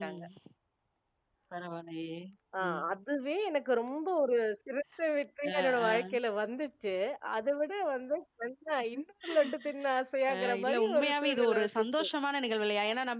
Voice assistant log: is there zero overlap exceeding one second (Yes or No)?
No